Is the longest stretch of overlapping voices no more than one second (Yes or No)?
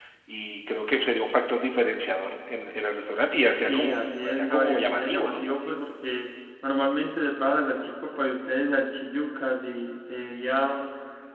No